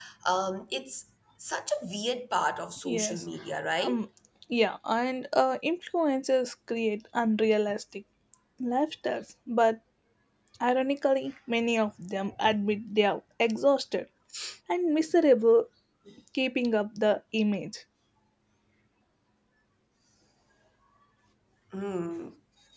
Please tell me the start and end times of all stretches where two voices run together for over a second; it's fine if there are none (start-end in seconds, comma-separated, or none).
none